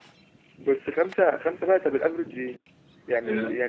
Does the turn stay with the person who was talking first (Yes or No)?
Yes